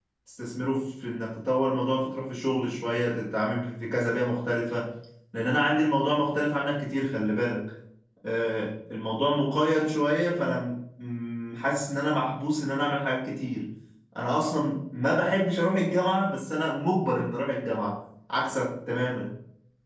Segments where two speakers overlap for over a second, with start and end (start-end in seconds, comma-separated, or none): none